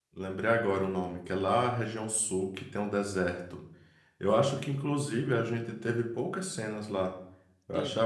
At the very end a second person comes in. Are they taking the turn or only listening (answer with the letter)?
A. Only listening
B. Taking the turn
A